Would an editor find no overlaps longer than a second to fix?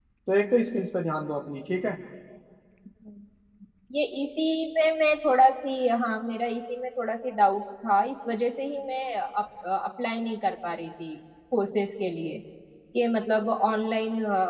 Yes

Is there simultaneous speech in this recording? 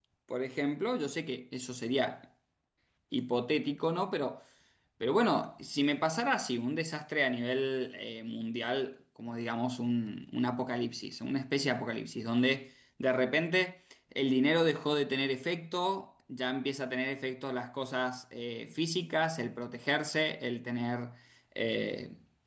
No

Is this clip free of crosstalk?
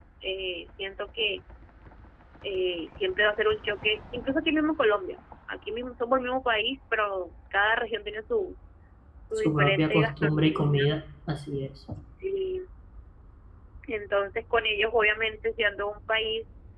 No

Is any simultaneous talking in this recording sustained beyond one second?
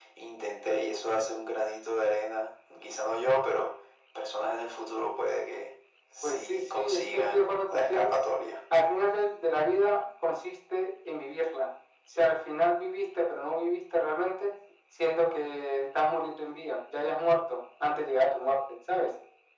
Yes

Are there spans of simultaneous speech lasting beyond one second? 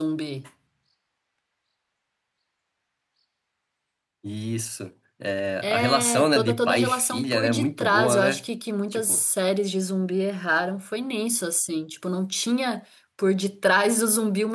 Yes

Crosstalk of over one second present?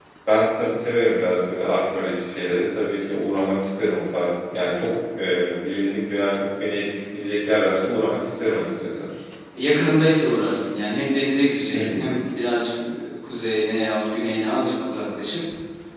No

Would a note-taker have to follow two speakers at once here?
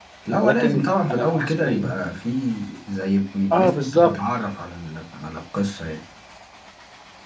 Yes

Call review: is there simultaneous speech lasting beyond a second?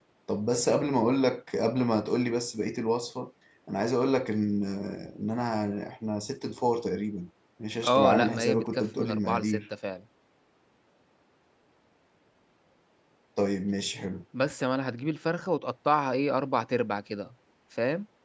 Yes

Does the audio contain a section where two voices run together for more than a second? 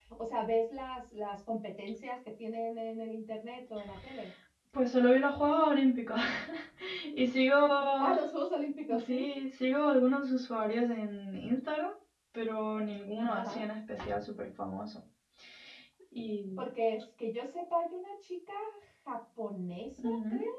No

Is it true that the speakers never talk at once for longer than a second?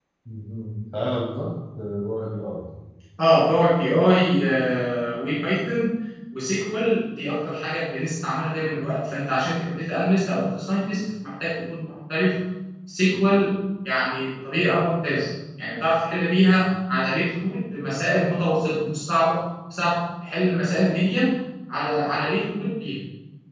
Yes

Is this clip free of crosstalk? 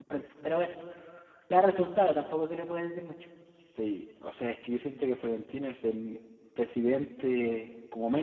Yes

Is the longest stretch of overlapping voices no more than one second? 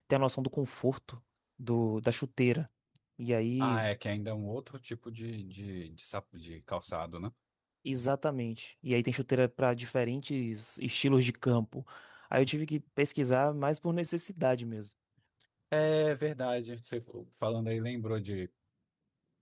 Yes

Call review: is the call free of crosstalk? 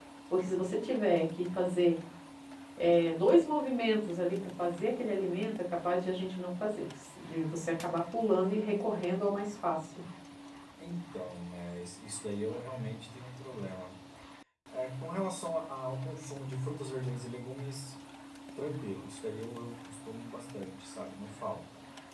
Yes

